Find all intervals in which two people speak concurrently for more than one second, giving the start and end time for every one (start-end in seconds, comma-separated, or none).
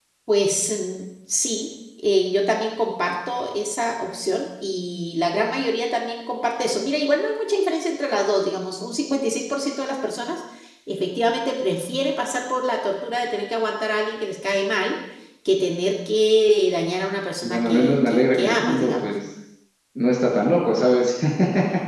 17.4-19.1